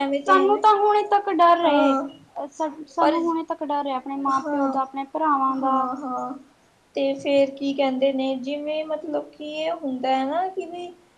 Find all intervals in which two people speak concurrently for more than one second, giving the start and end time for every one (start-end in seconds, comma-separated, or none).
none